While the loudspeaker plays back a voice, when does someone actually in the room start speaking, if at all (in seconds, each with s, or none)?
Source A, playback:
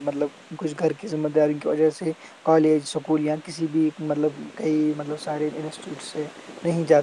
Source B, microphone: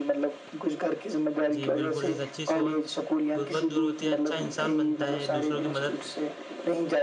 1.5 s